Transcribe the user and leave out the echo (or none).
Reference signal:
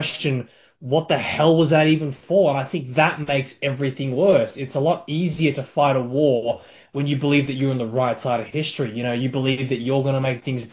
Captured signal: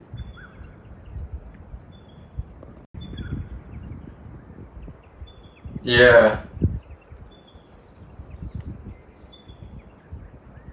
yeah,